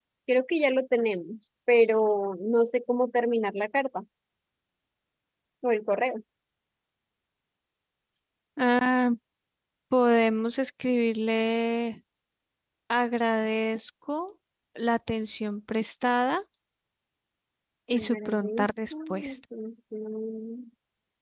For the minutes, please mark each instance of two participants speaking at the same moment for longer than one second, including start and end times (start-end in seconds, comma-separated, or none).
17.9-19.3